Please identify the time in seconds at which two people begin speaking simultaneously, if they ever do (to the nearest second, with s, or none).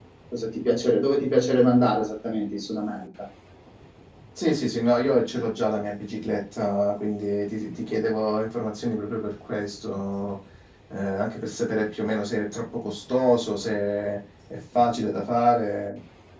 none